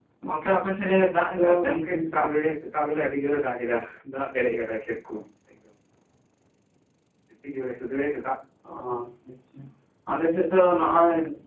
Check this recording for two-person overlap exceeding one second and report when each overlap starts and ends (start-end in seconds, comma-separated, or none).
1.0-2.2